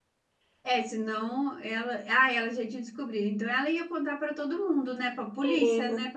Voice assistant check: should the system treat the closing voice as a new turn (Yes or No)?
Yes